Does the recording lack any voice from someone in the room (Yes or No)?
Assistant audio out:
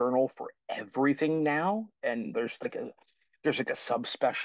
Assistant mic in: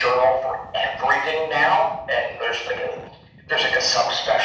Yes